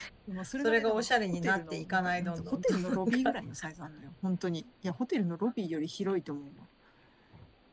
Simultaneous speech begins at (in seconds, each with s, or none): 0.6 s